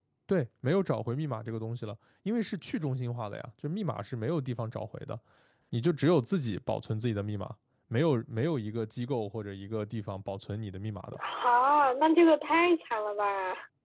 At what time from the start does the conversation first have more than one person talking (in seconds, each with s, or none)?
none